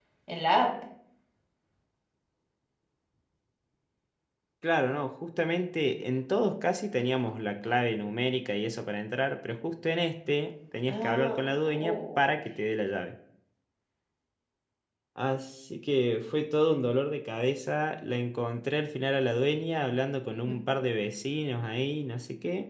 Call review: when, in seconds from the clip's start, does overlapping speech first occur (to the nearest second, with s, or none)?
11 s